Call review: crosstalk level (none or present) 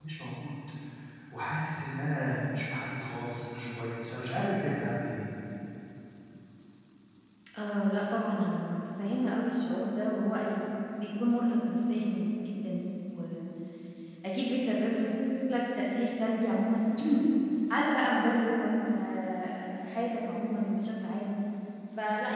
none